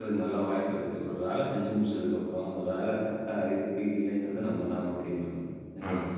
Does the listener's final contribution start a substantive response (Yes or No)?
Yes